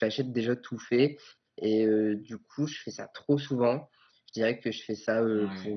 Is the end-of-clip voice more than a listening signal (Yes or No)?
No